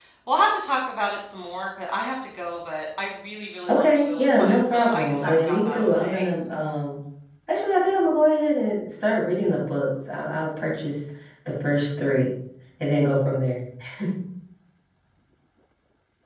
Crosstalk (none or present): present